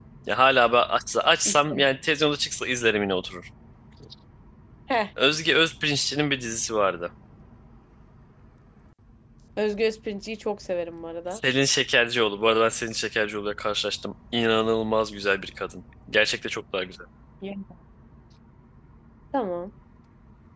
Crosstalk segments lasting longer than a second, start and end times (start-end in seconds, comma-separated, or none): none